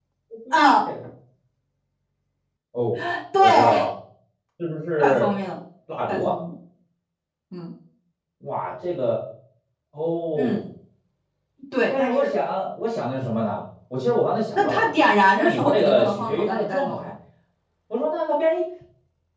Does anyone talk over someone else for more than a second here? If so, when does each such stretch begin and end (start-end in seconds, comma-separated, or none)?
14.5-17.0